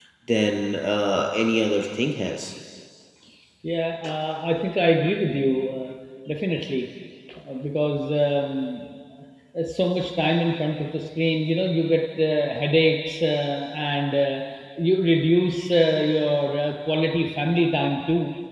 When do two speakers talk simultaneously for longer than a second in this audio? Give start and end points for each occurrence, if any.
none

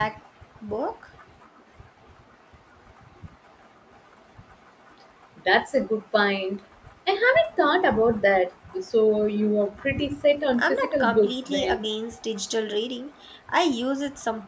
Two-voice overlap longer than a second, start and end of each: 10.6-11.8

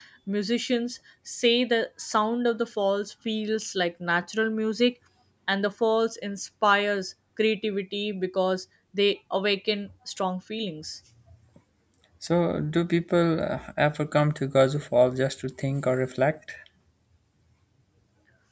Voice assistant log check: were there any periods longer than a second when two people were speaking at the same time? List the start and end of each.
none

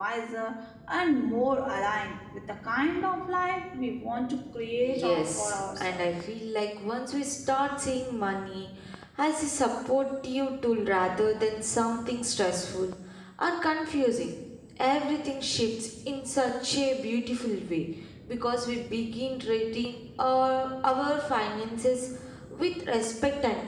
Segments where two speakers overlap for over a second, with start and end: 4.8-6.0

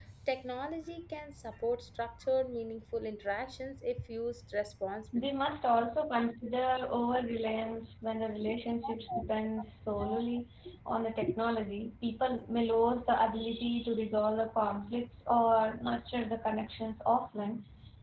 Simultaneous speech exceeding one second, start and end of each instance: none

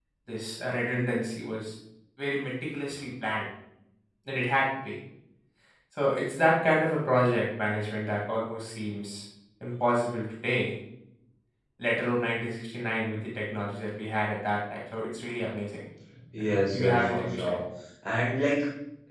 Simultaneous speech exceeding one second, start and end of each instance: 16.4-17.6

